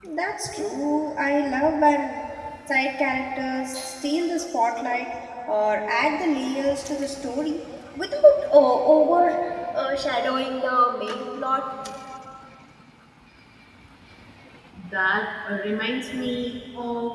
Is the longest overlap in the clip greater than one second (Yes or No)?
No